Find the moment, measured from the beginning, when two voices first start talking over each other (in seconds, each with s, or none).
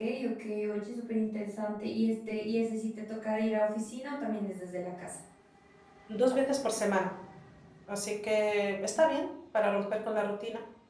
none